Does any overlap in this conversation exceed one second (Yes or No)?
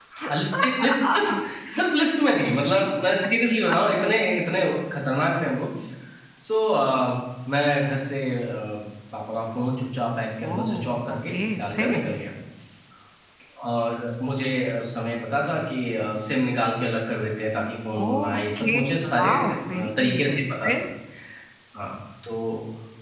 Yes